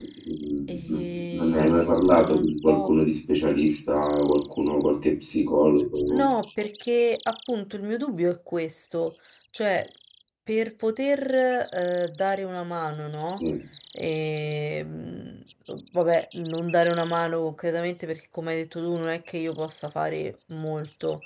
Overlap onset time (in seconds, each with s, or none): 0.7 s